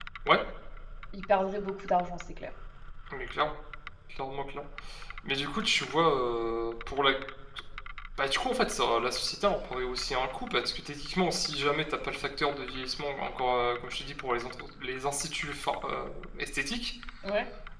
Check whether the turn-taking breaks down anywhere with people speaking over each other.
No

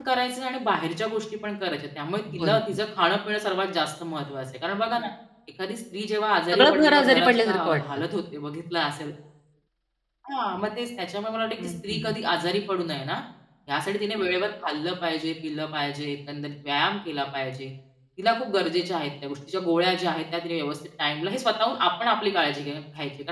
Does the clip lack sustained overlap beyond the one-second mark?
No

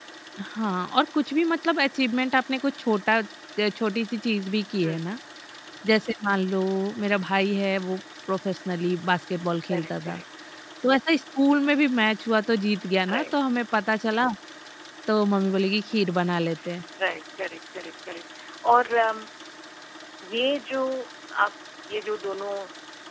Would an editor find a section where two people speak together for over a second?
No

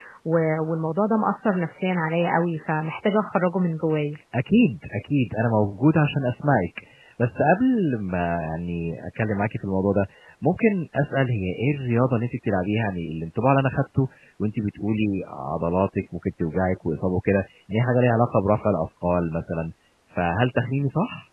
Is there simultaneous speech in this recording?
No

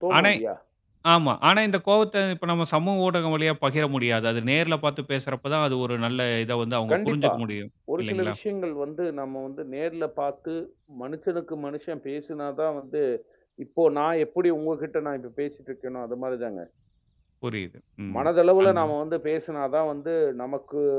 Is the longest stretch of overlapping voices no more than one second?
Yes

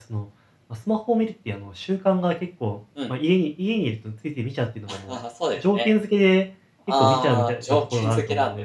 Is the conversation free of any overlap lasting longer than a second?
No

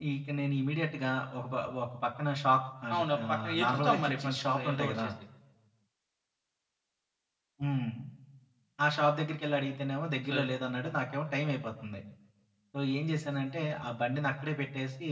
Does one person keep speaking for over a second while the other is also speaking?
Yes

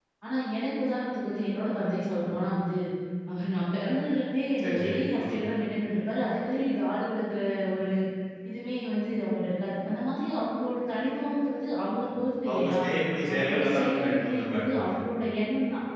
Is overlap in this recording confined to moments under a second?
No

